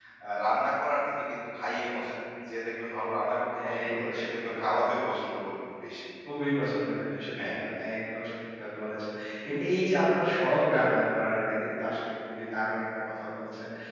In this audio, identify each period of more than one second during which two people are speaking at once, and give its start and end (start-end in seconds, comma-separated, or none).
3.5-4.8